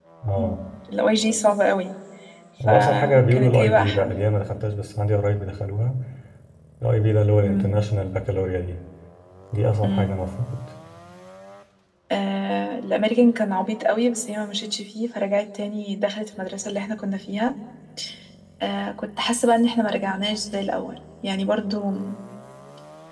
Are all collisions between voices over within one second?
No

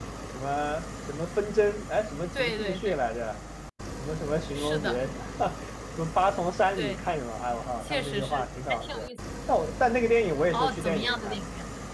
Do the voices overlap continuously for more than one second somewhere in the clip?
Yes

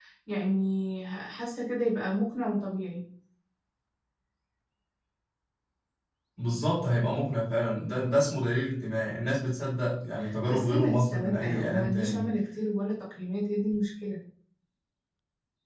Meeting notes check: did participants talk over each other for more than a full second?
Yes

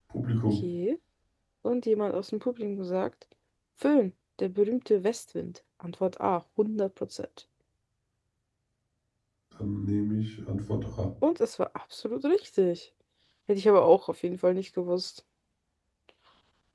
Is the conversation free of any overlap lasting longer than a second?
Yes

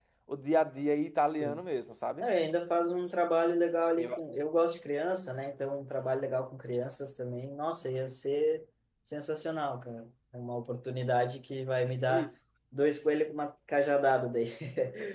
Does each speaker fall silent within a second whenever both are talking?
Yes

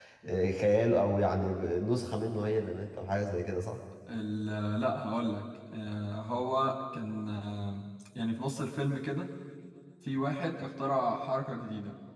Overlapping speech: No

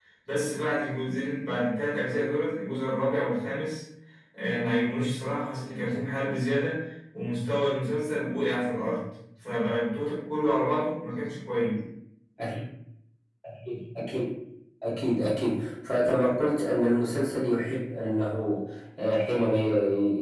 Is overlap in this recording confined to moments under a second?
Yes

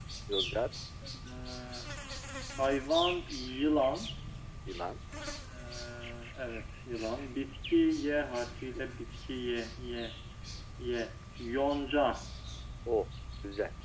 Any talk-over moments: No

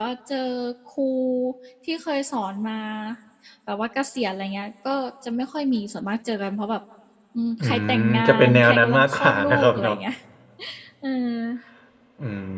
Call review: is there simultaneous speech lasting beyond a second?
Yes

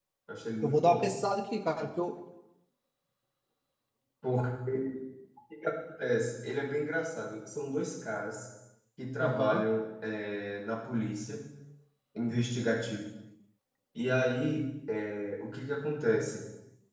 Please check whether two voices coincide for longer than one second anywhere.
No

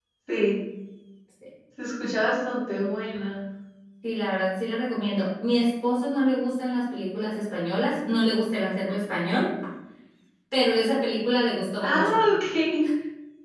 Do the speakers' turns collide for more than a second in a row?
No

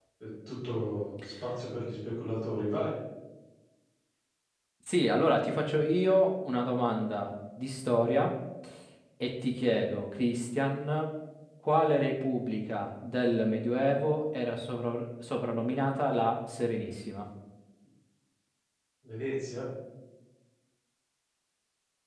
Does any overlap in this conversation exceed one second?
No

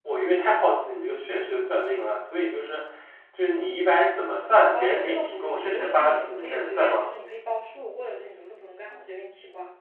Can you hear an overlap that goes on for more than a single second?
Yes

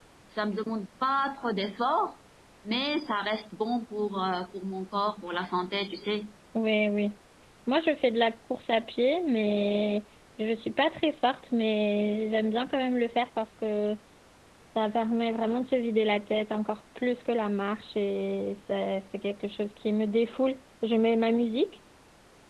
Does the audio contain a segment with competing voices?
No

